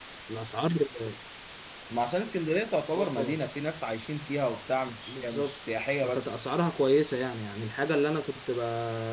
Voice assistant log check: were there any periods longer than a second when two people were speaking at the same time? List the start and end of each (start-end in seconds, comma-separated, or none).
5.1-6.4